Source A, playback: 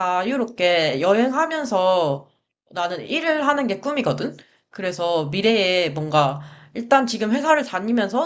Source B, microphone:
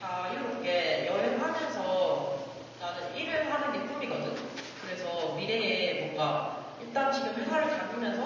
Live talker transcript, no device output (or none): none